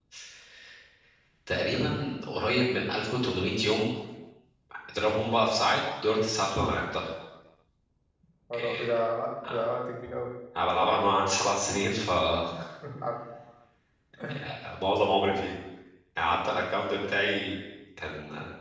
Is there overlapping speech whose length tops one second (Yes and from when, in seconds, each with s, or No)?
No